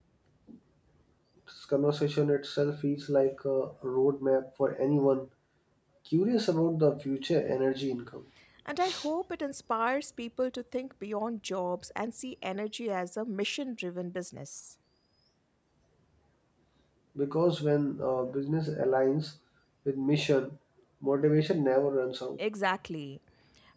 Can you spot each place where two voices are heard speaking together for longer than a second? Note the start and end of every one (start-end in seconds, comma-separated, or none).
none